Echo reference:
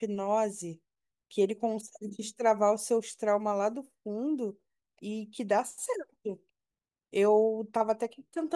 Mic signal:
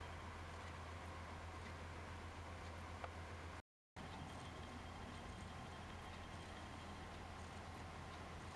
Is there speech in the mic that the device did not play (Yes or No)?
No